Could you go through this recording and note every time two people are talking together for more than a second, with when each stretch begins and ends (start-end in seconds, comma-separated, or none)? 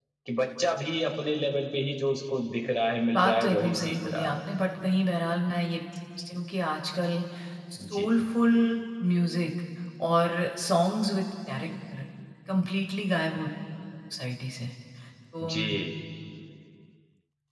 3.1-4.4